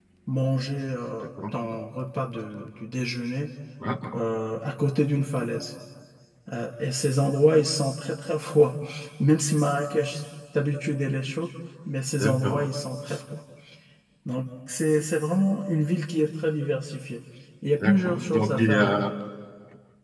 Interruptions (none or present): present